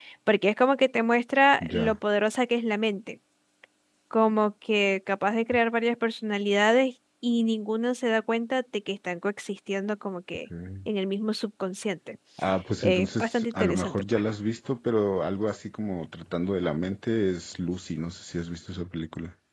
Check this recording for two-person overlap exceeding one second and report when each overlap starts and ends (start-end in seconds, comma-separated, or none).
12.8-14.2